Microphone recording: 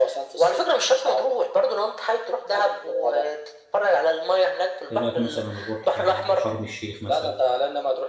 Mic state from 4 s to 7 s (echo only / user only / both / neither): both